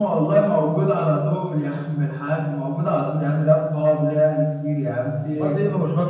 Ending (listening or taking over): taking over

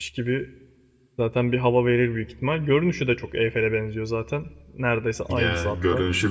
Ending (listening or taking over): taking over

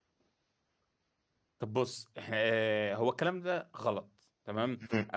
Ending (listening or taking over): listening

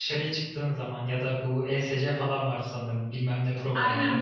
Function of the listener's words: taking over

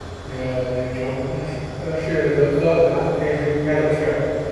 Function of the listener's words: listening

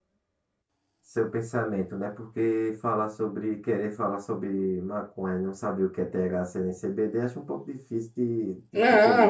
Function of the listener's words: taking over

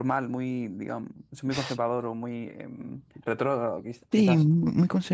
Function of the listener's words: taking over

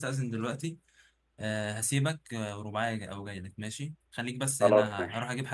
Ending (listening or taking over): listening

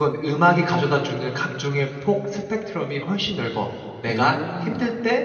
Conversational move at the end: listening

